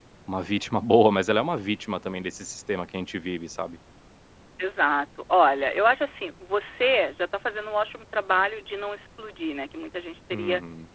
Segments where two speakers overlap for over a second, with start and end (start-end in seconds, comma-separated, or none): none